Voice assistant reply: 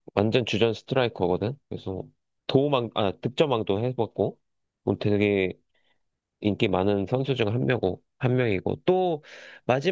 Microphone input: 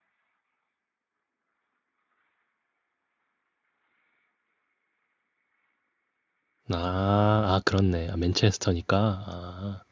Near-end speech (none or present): present